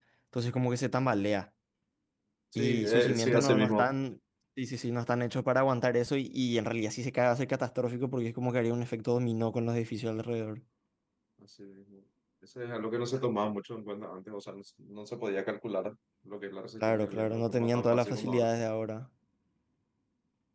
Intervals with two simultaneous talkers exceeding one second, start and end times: 2.6-3.8, 16.9-18.4

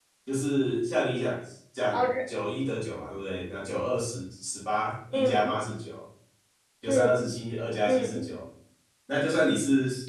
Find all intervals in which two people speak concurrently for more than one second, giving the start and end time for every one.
none

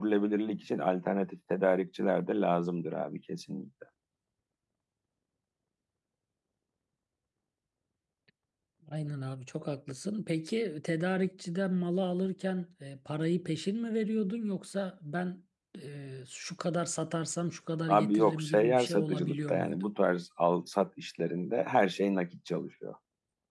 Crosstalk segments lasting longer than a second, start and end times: 17.9-19.8

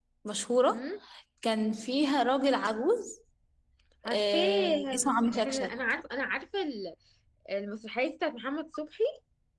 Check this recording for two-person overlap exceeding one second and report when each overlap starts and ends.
4.1-5.7

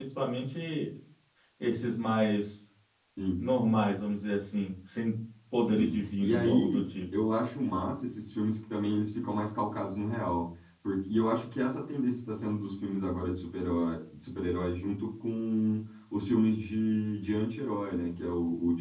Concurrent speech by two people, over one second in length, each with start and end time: 5.6-6.8

